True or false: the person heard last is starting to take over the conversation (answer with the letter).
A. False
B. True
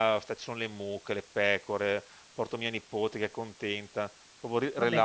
A